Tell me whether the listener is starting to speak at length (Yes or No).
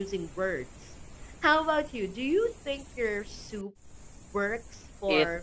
Yes